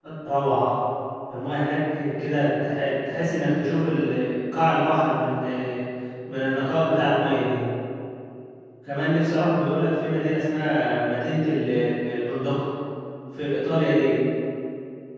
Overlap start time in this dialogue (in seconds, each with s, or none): none